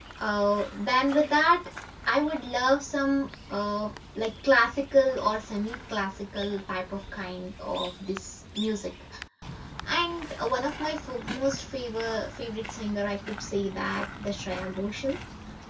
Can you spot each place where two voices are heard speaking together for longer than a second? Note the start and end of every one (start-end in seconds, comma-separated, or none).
none